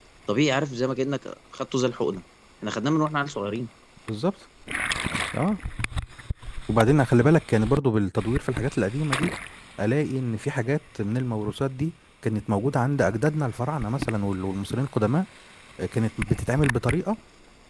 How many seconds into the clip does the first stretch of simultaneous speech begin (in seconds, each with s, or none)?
none